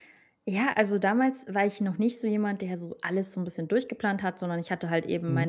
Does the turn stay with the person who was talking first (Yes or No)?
Yes